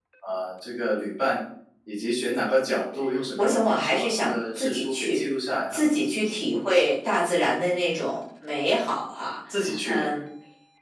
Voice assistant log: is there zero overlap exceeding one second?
No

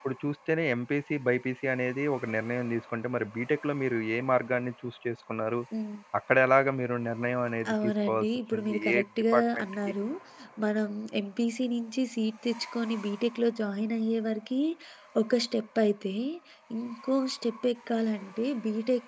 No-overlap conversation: No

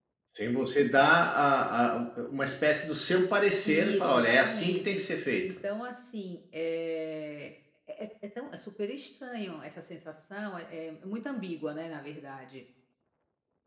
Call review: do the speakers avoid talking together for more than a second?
No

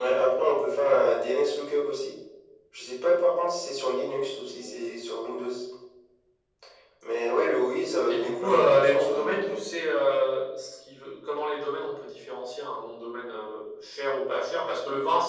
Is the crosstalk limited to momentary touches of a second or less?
No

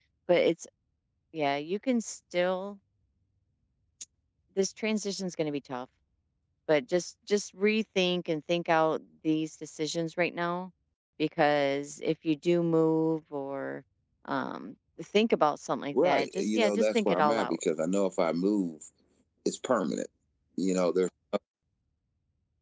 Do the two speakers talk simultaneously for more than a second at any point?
Yes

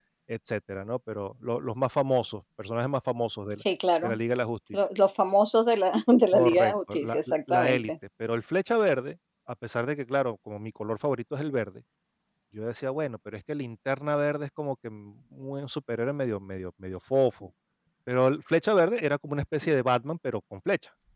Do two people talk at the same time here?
Yes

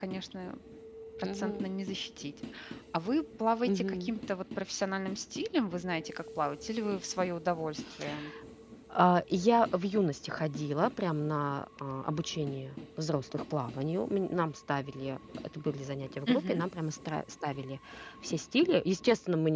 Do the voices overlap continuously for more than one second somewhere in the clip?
No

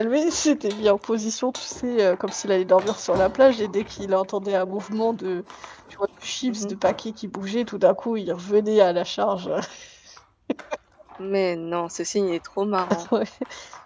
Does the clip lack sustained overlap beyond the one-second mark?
Yes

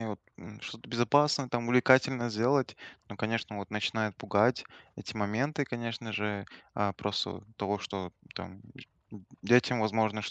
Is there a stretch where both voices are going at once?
No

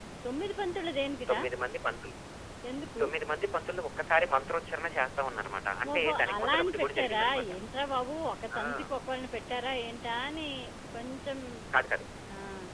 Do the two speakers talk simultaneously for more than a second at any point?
Yes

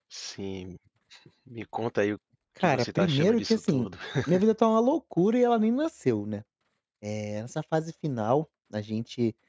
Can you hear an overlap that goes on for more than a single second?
Yes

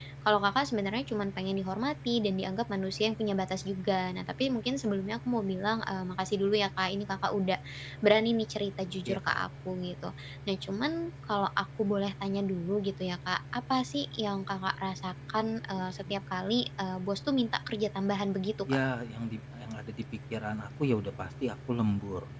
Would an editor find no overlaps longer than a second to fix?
Yes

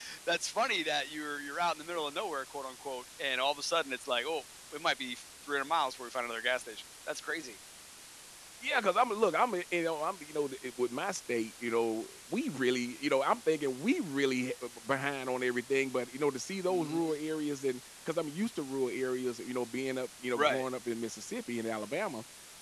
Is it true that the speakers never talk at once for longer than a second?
Yes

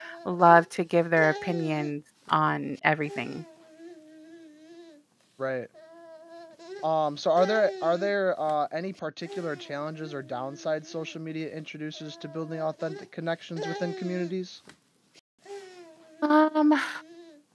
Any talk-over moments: No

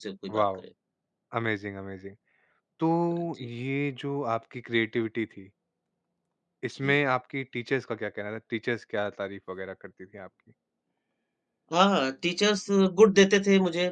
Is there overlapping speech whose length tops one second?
No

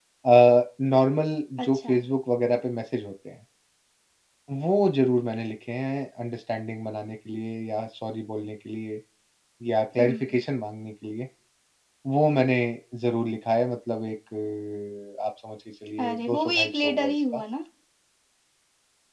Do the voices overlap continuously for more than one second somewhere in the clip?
Yes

